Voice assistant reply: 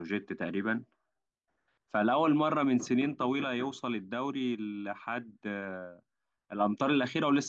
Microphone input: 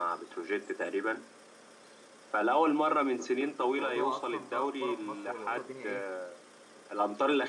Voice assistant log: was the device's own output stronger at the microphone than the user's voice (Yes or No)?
Yes